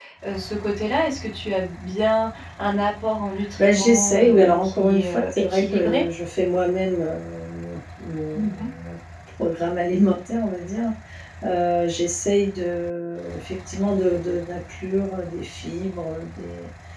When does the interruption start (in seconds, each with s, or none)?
3.6 s